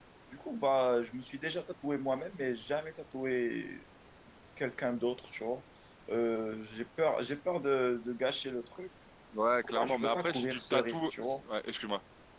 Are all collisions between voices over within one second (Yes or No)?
No